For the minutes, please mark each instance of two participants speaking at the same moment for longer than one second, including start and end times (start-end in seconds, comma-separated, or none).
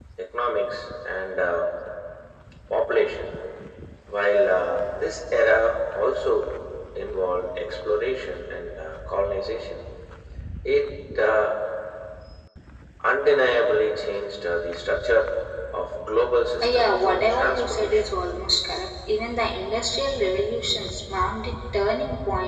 16.6-18.2